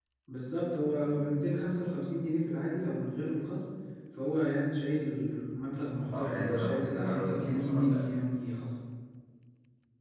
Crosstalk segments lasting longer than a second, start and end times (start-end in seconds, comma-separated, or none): 6.2-8.1